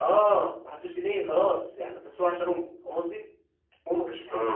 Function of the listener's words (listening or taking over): listening